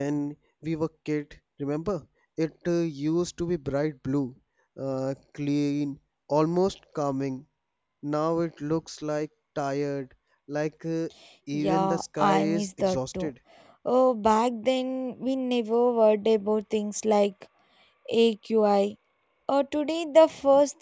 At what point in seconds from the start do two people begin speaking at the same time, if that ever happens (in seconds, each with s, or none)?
11.5 s